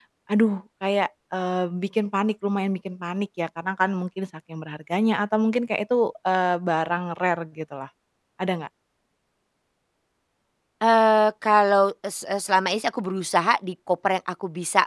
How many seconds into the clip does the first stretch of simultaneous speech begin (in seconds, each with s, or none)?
none